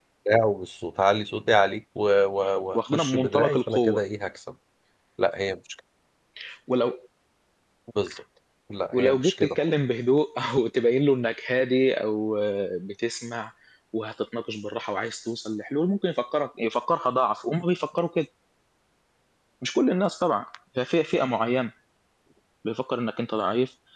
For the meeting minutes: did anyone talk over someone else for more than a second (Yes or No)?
Yes